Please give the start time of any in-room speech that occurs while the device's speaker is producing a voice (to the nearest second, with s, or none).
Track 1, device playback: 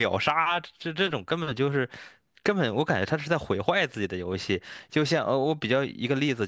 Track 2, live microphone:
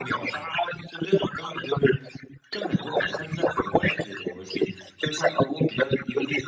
none